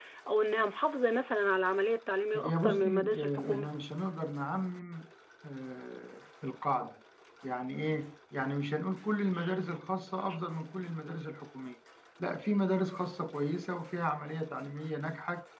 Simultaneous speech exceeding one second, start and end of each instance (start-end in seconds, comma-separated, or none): 2.3-3.7